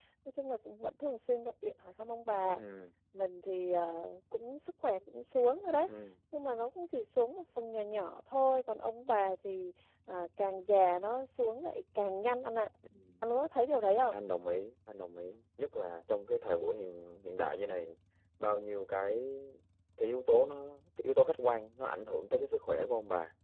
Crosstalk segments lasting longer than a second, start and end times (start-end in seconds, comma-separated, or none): none